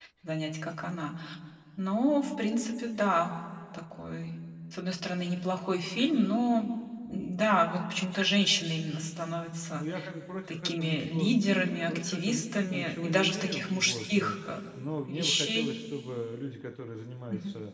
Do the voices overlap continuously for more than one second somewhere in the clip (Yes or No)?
Yes